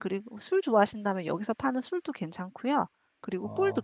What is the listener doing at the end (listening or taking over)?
taking over